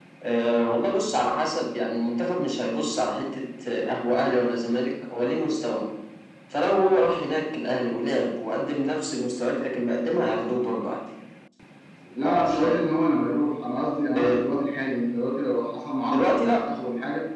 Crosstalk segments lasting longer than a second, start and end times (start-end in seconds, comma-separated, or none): none